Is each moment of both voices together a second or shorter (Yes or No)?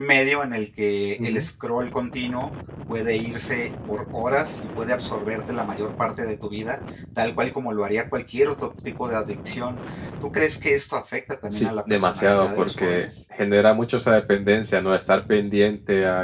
No